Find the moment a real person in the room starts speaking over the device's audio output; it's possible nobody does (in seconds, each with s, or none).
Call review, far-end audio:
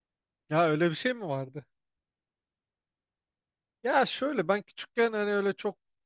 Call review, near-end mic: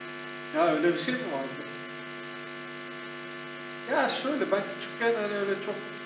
none